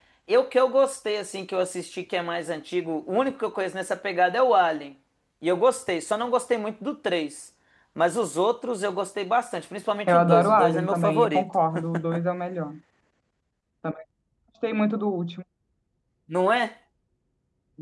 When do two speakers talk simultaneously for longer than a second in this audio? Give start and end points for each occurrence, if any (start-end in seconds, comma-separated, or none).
10.1-11.4